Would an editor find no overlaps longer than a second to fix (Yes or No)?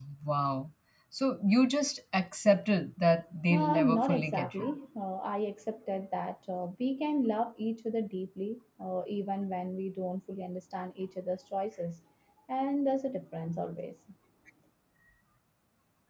No